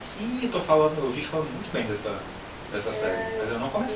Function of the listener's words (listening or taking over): taking over